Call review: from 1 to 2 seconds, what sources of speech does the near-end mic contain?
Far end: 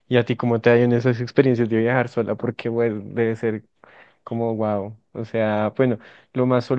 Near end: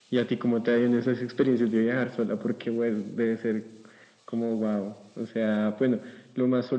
echo only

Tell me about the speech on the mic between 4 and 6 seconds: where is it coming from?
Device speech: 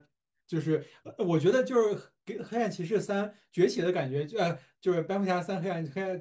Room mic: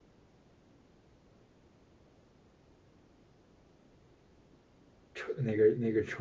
user only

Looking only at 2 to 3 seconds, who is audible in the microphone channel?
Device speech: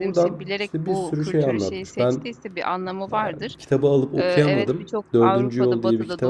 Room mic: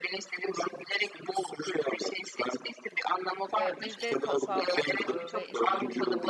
echo only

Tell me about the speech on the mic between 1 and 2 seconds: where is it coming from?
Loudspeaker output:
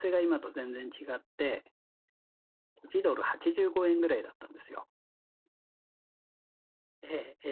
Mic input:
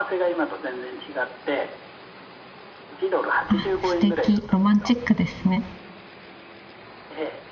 echo only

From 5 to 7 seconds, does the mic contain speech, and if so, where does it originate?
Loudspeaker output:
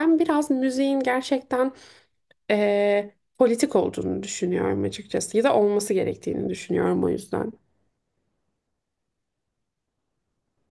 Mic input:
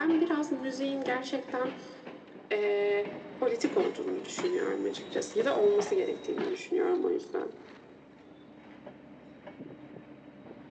echo only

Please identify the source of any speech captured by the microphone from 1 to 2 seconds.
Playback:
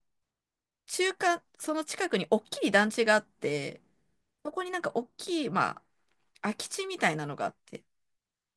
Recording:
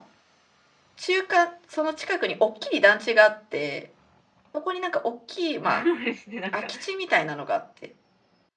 echo only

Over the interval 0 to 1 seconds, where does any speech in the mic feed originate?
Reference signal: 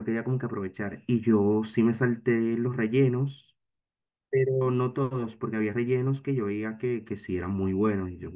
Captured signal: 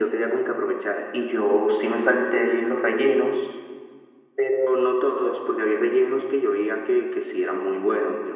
echo only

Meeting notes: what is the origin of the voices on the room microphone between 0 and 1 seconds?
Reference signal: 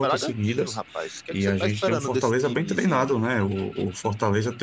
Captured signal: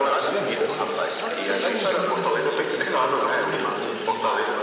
both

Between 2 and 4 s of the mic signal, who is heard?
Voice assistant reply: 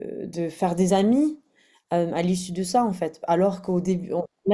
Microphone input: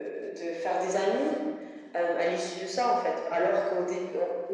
echo only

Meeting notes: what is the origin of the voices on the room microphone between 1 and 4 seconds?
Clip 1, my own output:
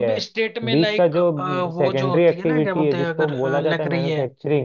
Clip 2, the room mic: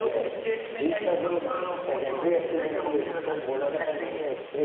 echo only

